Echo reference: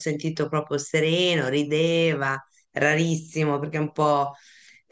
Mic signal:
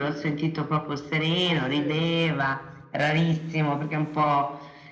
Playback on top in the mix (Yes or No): Yes